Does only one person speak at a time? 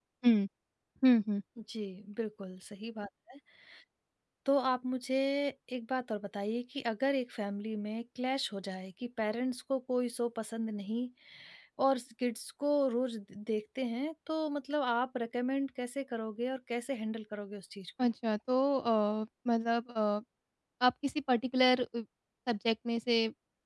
Yes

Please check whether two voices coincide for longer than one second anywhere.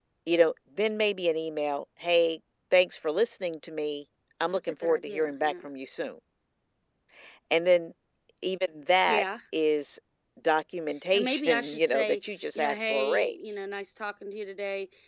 Yes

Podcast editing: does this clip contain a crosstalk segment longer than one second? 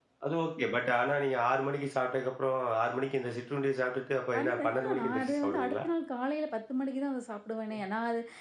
Yes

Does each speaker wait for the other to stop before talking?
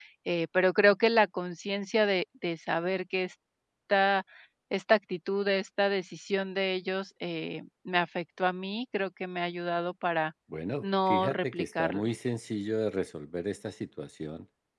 No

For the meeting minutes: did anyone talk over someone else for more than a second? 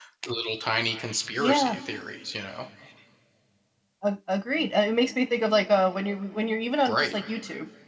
No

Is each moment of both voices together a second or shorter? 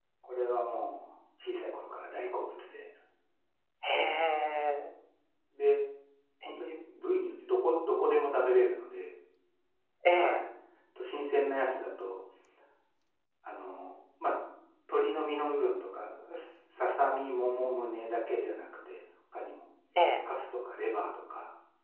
Yes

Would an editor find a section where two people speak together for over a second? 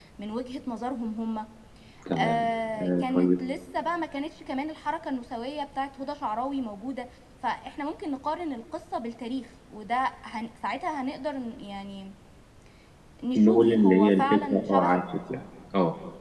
Yes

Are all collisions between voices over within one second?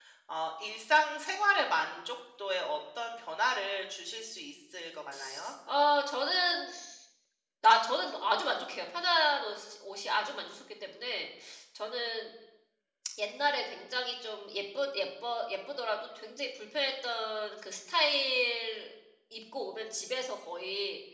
Yes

